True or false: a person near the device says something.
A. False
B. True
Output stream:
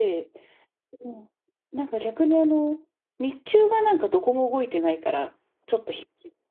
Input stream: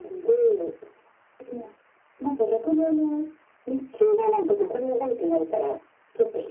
A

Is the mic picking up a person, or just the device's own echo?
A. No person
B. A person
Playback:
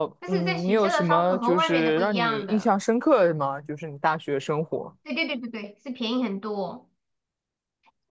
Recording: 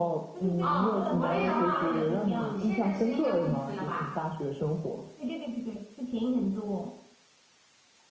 B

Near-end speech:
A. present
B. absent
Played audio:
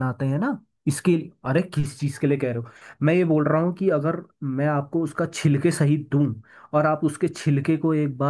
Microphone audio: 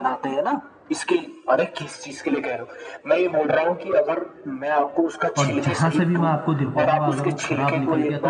A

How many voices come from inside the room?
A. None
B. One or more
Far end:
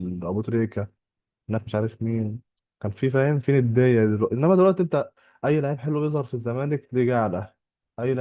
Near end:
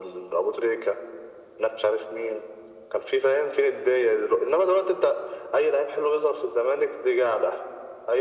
A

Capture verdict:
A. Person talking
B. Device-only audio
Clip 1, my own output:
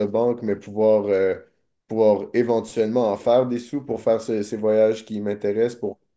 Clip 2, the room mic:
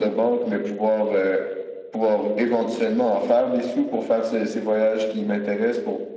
B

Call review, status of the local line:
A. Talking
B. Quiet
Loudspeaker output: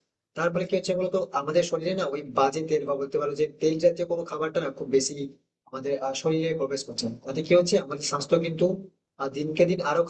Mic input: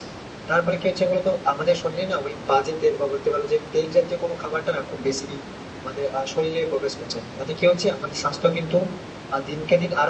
B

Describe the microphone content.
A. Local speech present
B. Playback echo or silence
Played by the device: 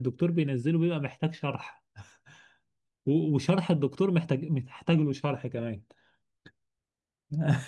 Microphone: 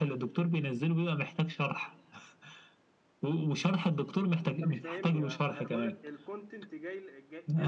A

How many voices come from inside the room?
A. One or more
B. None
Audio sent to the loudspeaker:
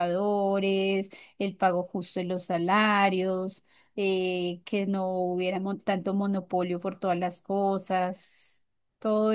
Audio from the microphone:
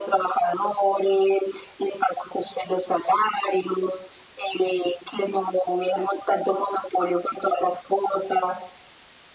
B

